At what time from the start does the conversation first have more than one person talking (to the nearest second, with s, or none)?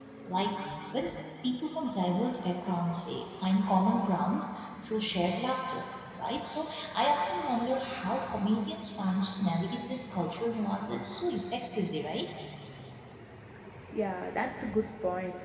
none